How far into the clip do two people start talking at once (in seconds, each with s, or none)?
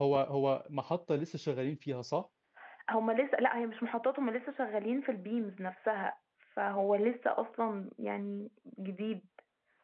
none